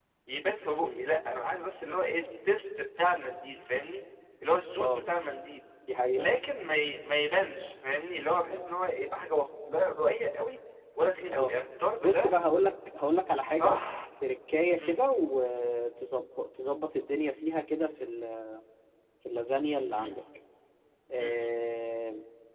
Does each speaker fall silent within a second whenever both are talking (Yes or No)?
Yes